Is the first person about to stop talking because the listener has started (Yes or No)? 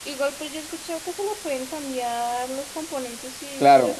Yes